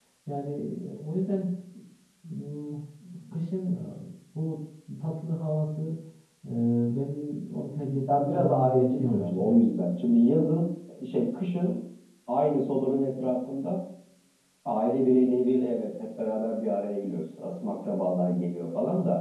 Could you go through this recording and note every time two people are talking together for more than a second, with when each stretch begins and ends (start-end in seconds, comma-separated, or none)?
8.1-9.6